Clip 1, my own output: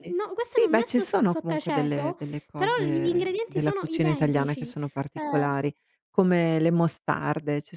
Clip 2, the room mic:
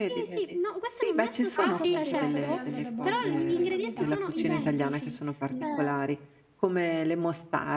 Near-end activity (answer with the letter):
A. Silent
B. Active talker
B